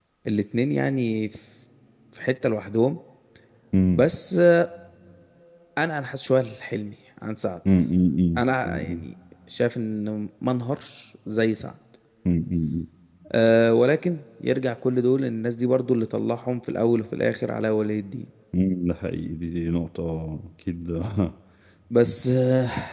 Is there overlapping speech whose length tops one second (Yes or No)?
No